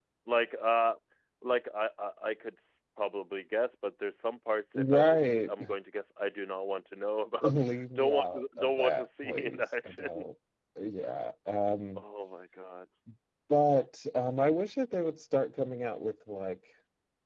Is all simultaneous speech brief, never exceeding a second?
No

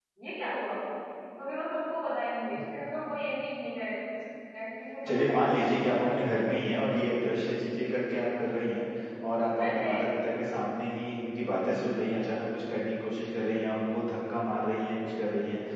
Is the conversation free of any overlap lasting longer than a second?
No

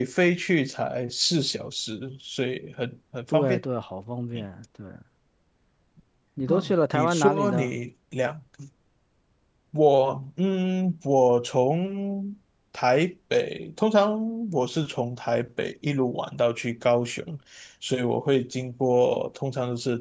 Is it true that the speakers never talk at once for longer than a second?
No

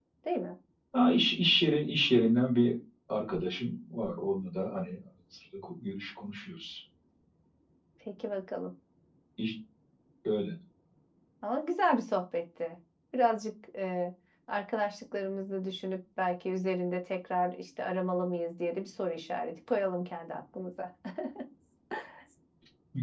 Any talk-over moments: No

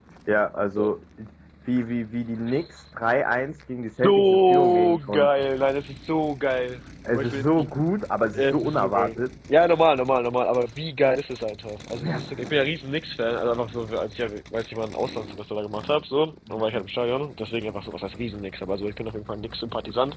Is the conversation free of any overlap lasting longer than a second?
No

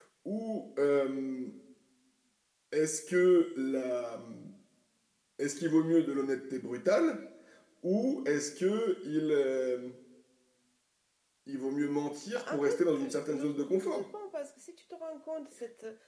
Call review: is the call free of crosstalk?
No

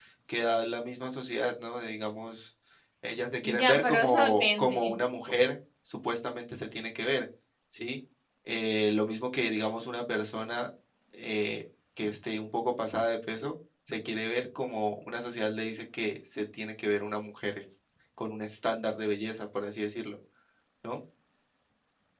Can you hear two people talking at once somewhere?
Yes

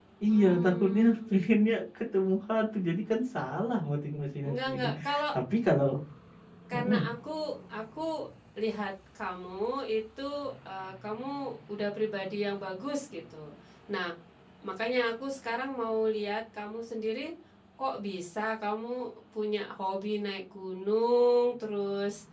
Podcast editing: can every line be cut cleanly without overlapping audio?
No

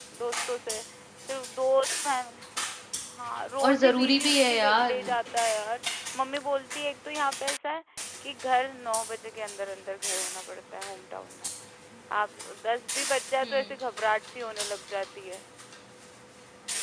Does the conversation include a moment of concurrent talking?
Yes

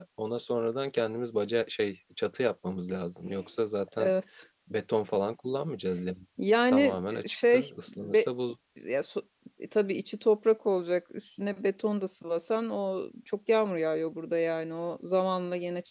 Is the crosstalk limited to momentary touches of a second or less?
No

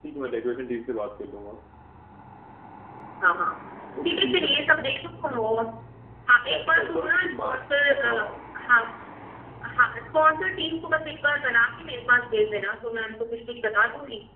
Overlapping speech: Yes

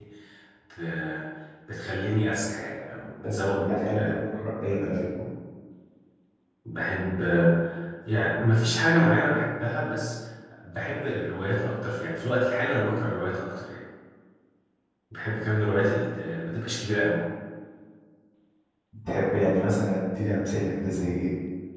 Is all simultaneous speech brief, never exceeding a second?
No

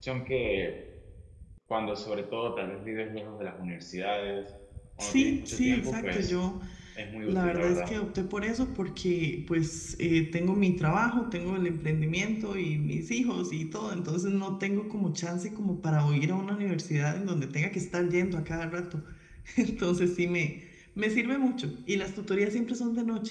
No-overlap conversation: No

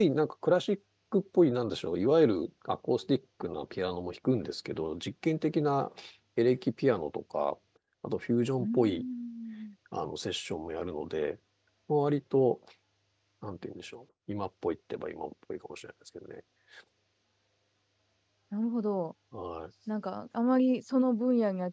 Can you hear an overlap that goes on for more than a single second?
No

